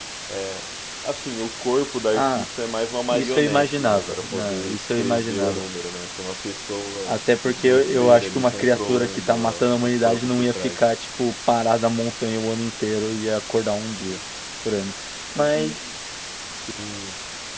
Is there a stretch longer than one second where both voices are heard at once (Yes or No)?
Yes